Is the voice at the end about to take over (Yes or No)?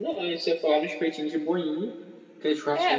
Yes